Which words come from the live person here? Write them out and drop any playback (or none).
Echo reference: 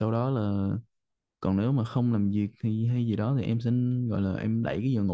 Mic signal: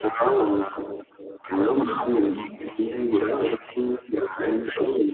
khi mà chị